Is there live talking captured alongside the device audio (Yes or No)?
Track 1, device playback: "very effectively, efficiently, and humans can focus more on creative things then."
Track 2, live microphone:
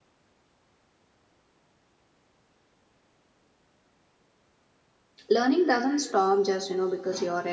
Yes